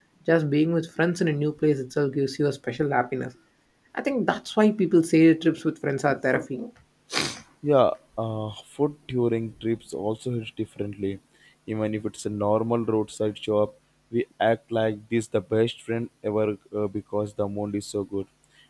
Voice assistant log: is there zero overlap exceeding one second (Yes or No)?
Yes